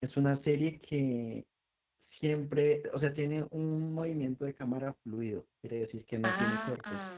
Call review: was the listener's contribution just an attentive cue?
No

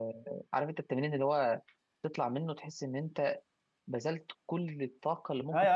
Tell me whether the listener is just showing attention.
No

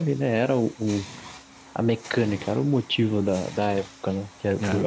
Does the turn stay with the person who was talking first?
Yes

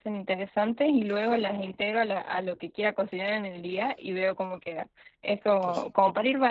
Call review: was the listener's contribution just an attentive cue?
Yes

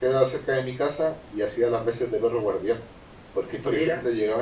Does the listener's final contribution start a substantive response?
No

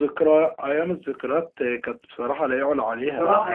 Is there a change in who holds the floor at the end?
Yes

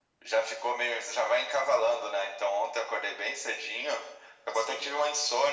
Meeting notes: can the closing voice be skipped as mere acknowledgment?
Yes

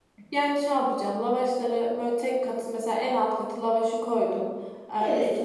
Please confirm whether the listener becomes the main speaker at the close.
No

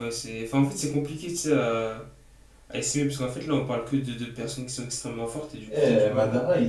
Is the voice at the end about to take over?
Yes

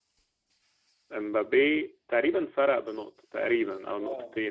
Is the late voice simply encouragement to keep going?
No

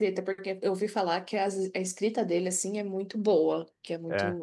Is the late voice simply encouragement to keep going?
Yes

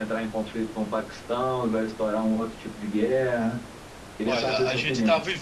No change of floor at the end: No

